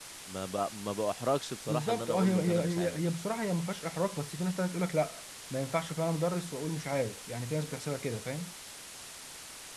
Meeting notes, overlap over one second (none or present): present